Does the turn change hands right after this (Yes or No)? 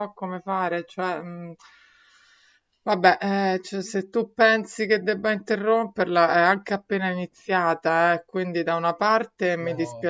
No